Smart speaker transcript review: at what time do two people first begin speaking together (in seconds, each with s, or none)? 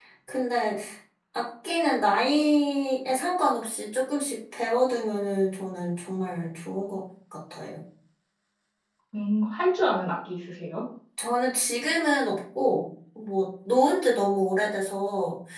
none